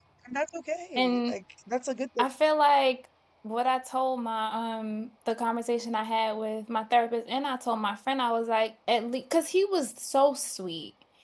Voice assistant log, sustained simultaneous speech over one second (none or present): none